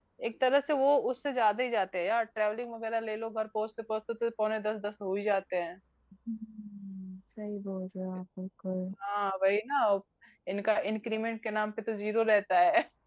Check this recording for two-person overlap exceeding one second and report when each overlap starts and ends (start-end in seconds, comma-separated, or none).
none